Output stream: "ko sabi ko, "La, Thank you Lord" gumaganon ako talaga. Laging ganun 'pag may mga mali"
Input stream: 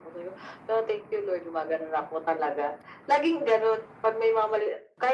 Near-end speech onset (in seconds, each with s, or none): none